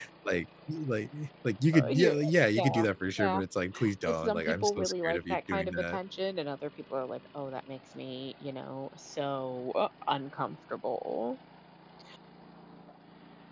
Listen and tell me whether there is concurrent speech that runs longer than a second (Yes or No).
Yes